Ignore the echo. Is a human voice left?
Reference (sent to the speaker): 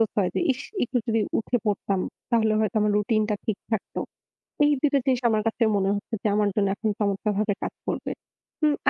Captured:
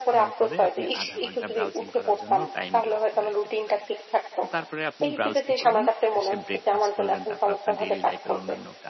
Yes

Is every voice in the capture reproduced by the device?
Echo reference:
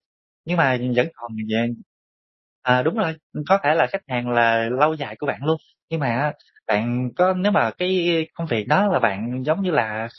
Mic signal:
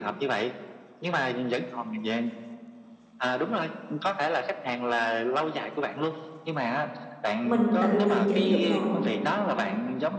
No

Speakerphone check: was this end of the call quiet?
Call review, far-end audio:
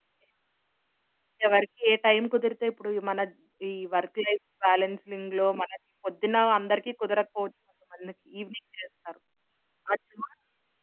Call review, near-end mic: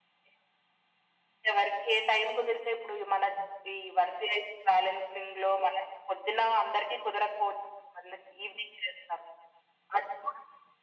Yes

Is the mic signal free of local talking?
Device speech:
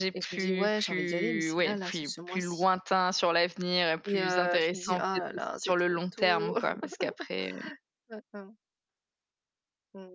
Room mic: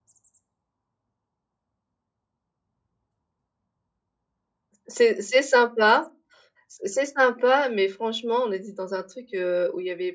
No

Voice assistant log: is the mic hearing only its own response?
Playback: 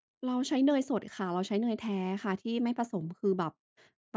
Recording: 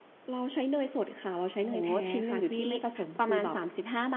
No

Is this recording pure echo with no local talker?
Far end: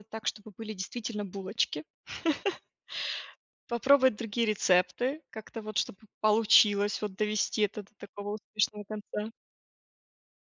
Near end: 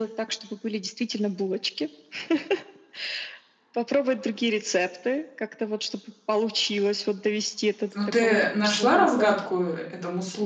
No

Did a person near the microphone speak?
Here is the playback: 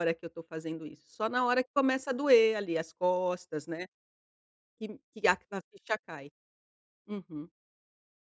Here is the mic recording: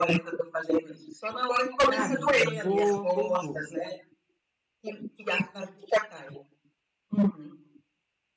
Yes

